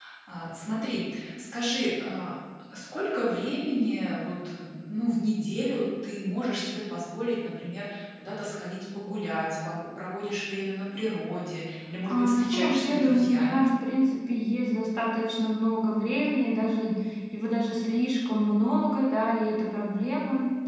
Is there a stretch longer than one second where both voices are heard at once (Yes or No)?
Yes